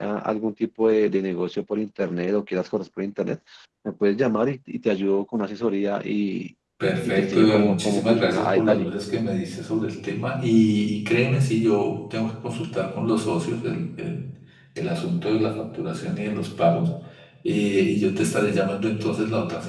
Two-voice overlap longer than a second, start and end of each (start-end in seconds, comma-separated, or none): 7.0-8.8